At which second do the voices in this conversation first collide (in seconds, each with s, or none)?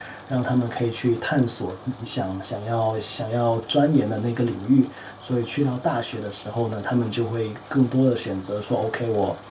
none